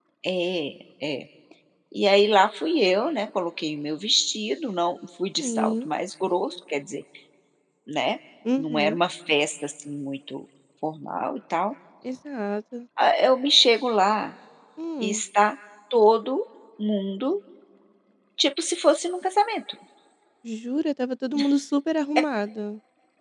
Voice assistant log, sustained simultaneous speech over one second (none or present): none